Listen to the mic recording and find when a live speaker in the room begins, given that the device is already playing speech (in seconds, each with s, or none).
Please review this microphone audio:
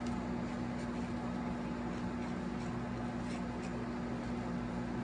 none